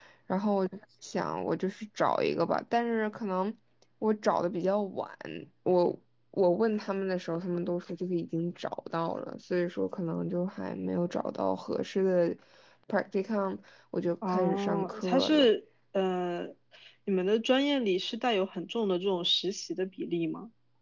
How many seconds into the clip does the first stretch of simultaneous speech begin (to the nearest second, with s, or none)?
14 s